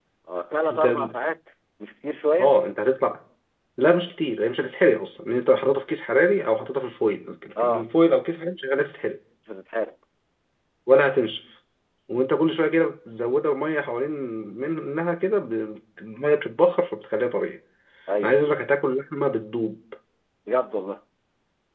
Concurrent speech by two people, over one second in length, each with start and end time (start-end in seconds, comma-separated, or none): none